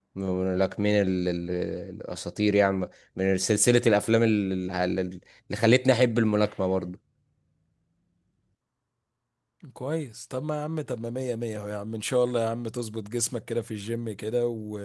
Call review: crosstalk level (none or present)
none